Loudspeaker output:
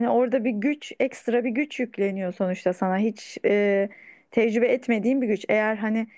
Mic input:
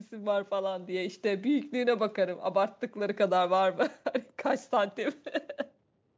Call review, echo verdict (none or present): none